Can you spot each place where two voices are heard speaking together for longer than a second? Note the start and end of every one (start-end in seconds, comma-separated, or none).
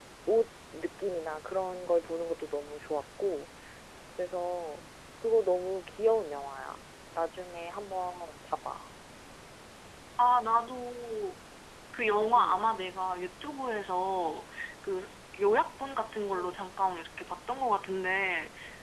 none